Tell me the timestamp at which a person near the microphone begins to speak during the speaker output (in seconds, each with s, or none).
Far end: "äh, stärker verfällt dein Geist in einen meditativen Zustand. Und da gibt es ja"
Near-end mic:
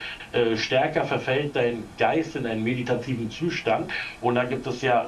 none